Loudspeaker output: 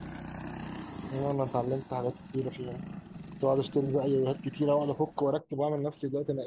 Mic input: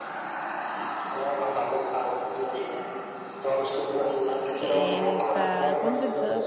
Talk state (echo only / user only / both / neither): both